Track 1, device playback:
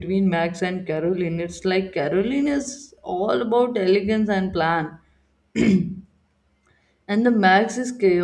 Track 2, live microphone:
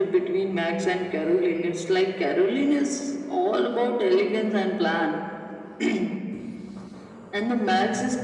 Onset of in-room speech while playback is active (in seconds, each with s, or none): none